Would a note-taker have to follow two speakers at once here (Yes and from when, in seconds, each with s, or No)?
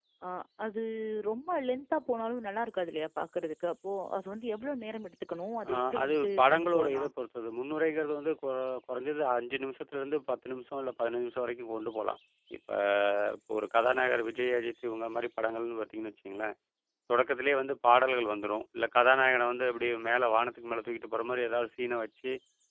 Yes, from 5.6 s